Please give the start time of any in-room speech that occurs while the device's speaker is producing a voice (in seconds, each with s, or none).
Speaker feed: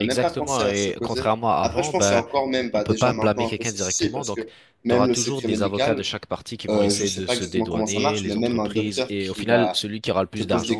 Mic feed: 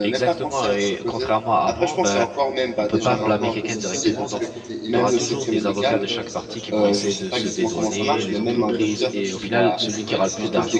2.9 s